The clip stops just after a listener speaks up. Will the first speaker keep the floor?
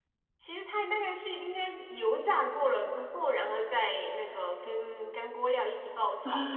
No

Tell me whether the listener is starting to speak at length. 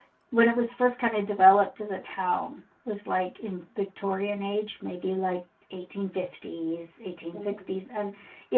No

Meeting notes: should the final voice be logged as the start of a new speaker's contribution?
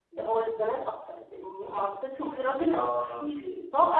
No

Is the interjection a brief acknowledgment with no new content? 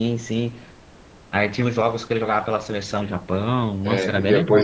No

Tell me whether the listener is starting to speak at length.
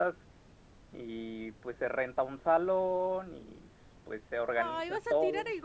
Yes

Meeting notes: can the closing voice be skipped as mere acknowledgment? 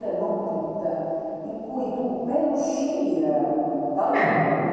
Yes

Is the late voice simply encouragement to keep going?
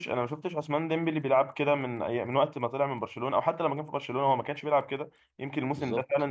Yes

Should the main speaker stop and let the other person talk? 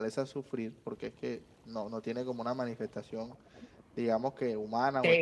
Yes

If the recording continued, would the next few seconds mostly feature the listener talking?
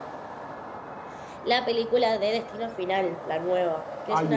Yes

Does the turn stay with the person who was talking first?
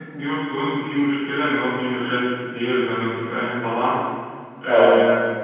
Yes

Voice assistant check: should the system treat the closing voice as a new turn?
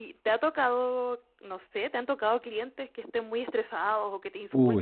Yes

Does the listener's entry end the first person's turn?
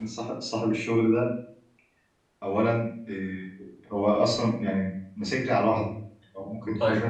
Yes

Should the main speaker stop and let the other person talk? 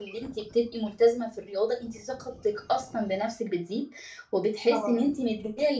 No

